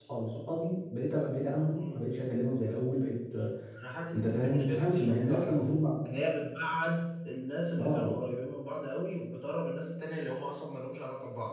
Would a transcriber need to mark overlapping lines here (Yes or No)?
Yes